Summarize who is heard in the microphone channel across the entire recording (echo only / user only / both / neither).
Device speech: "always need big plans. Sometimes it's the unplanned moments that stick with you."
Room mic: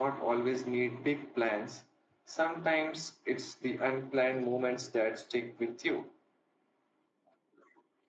both